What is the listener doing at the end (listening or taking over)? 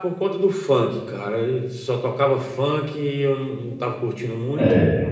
listening